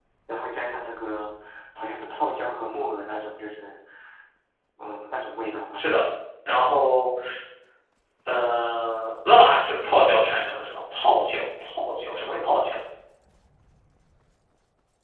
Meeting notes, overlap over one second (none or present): none